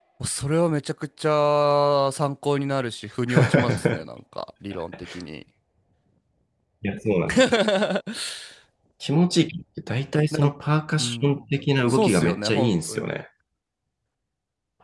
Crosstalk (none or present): present